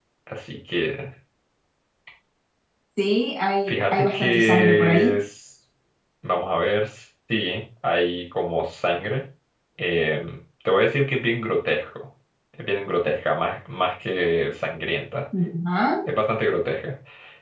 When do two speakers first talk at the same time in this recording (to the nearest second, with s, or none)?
4 s